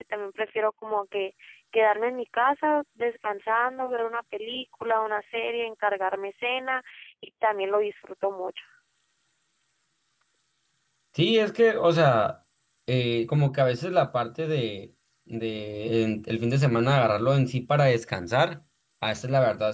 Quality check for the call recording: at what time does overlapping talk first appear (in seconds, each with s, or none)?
none